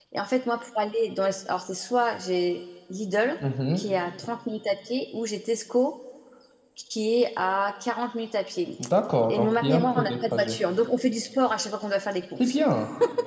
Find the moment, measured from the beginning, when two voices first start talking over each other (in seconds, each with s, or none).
9.3 s